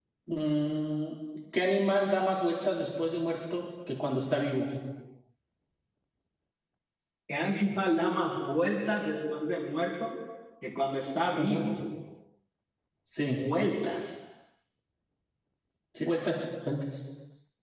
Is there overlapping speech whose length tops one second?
No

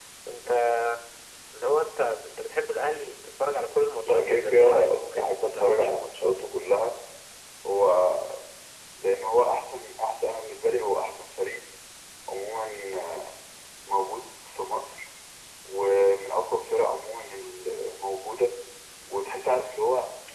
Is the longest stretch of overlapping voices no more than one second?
No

